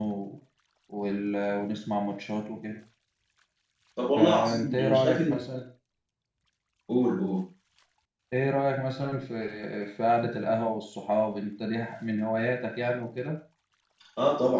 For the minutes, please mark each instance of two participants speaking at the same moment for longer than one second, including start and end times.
4.2-5.4

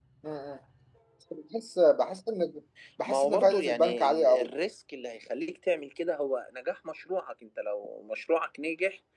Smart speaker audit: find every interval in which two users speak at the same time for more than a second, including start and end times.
3.0-4.5

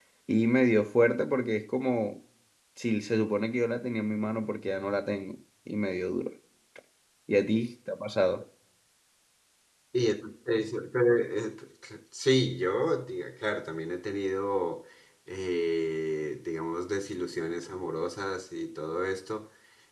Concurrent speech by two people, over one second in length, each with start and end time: none

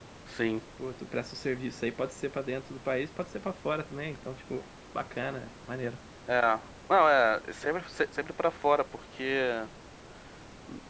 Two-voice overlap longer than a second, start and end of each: none

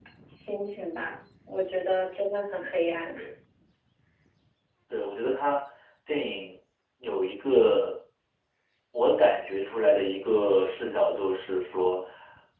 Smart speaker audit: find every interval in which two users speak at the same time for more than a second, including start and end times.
none

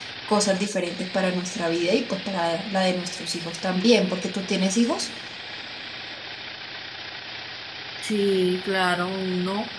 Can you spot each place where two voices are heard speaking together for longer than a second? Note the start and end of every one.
none

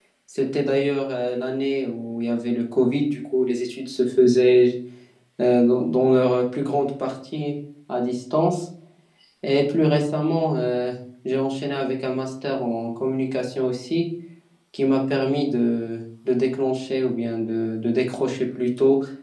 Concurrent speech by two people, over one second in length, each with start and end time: none

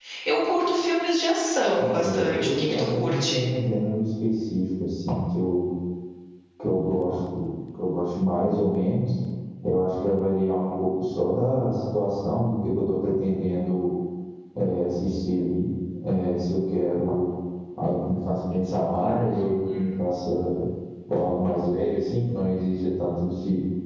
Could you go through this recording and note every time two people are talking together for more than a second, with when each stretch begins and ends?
1.8-3.5

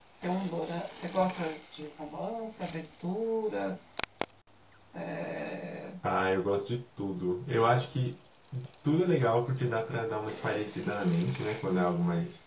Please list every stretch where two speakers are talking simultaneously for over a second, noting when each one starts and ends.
none

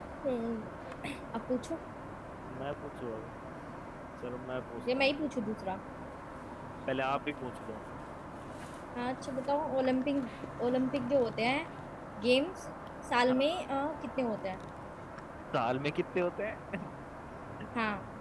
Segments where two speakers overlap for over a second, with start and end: none

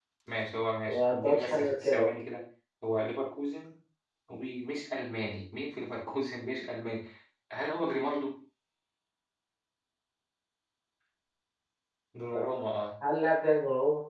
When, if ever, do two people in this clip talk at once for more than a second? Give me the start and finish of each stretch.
0.8-2.1

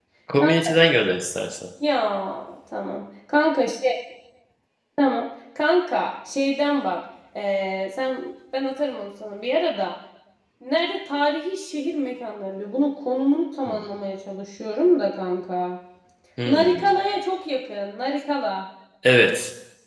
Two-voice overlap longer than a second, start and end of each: none

